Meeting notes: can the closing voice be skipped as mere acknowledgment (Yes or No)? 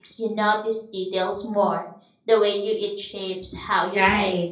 No